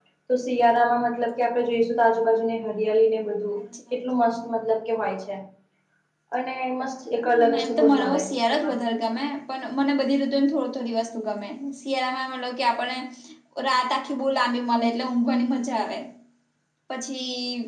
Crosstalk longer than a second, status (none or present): present